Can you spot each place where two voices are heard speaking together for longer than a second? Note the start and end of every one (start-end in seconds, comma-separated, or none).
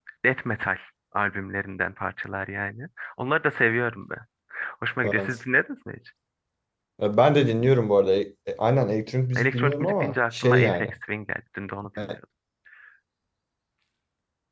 9.3-10.9